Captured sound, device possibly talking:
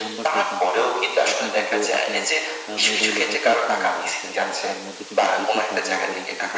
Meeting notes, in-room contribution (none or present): present